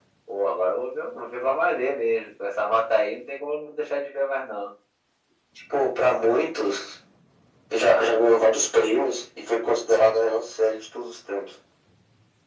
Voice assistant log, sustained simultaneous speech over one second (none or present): none